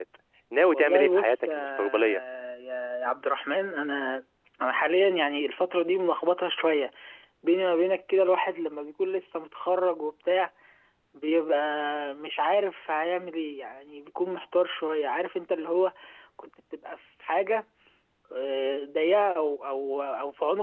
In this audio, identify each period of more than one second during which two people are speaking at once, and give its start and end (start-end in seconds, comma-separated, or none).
0.7-2.2